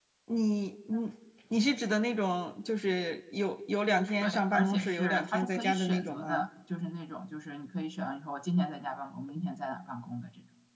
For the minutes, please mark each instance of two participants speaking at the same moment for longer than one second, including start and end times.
4.2-6.5

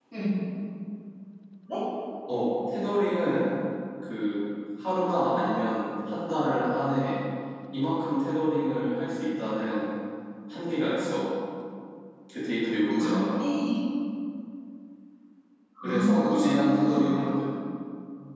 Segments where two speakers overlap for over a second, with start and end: 15.8-17.1

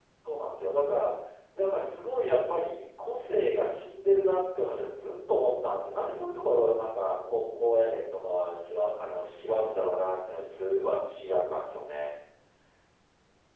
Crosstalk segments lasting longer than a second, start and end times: none

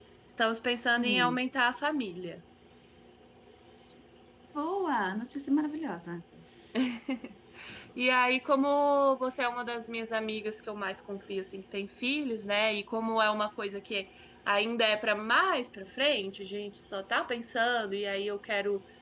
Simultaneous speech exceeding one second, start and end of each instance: none

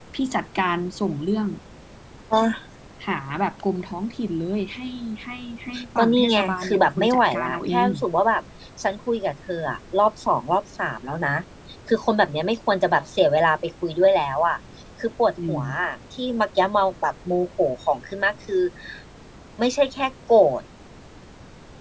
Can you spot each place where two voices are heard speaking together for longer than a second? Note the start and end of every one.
6.0-7.9

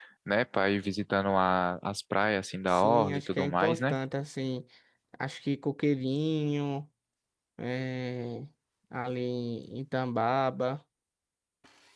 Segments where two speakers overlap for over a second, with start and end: 2.7-4.0

